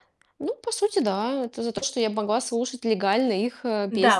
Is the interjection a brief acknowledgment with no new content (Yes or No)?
No